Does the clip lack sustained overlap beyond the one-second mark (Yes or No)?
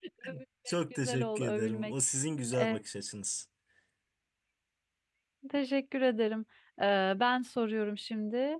No